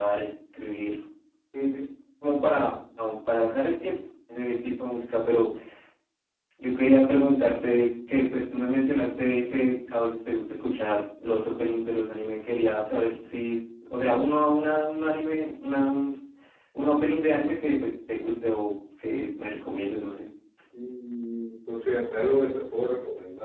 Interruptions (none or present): none